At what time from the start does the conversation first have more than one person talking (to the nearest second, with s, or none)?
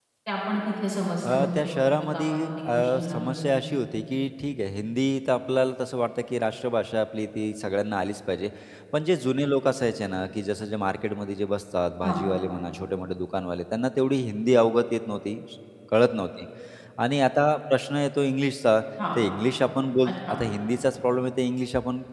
1 s